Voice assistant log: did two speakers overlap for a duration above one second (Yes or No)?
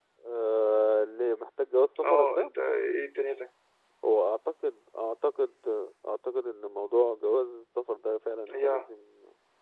No